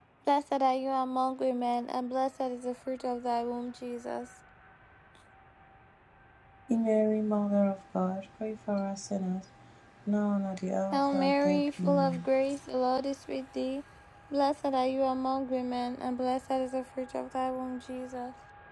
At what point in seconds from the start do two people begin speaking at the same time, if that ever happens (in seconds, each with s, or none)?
10.9 s